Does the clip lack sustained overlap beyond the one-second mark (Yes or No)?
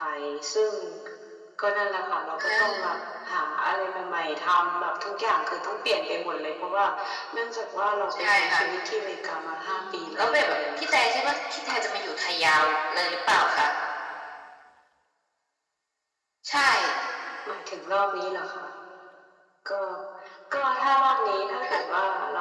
No